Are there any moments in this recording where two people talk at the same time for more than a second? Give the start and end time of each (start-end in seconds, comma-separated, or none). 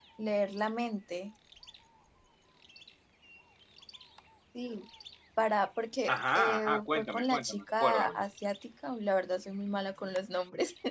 6.1-8.2